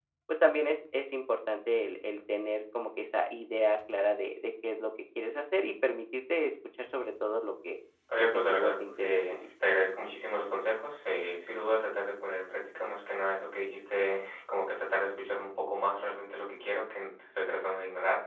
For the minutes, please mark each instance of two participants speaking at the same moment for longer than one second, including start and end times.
8.2-9.4

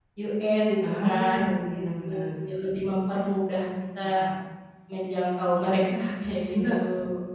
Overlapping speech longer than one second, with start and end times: 0.8-2.2

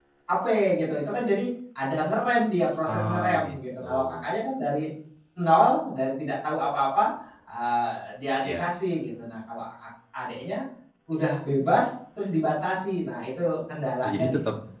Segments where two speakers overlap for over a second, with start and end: 2.9-4.2

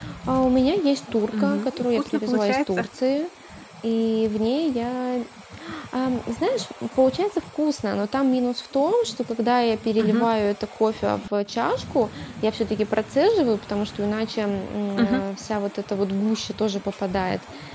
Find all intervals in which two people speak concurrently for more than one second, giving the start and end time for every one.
1.4-2.9

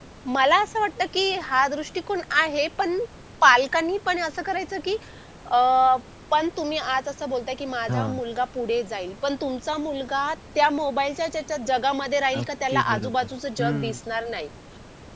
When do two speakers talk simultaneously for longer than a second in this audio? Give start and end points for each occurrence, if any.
12.4-14.0

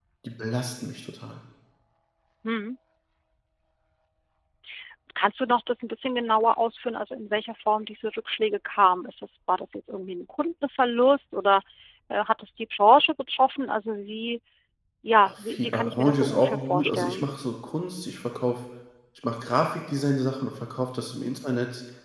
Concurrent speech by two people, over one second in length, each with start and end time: 15.2-17.3

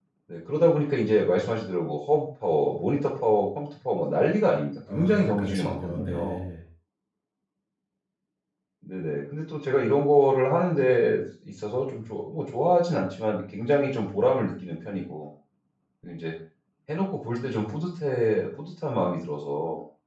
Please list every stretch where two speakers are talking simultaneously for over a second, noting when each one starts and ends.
4.9-6.4

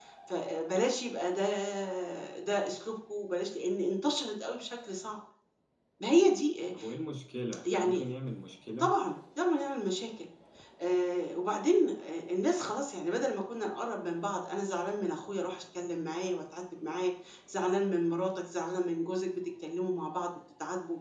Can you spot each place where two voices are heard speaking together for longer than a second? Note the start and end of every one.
none

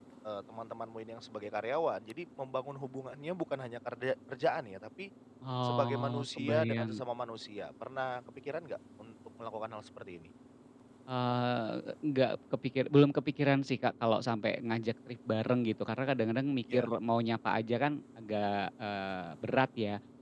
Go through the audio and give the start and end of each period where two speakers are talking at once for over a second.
5.6-7.0

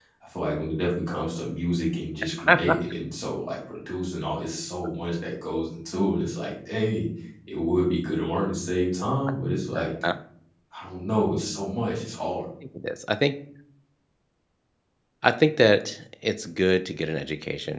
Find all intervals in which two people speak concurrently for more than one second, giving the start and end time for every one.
none

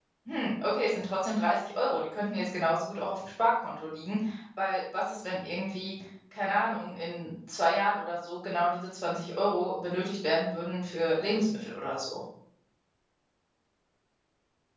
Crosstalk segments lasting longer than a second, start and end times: none

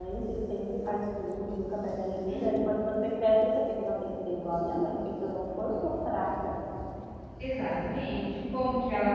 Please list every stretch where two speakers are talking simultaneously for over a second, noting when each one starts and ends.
none

